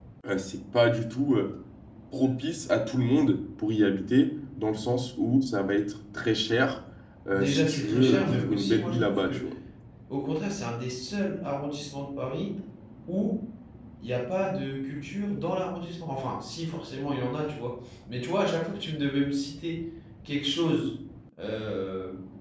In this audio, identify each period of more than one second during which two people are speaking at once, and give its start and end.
7.3-9.4

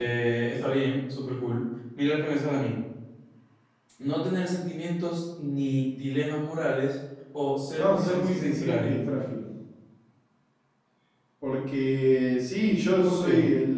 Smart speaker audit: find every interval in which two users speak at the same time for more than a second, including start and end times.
7.8-9.0

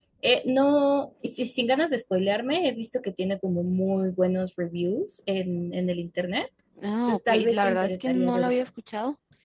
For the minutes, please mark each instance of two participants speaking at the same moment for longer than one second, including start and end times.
7.1-8.7

